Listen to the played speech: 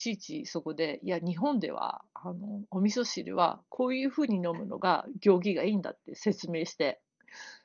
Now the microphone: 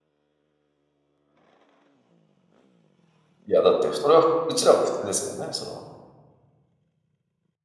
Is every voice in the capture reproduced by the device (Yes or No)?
No